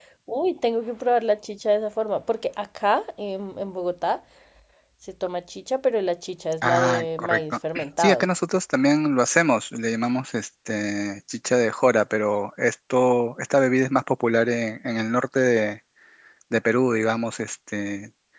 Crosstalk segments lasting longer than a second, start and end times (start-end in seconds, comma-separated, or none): 6.7-8.3